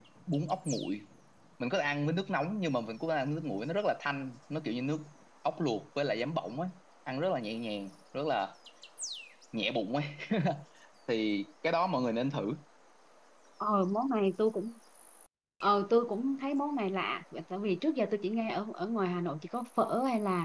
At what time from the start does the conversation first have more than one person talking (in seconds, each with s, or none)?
none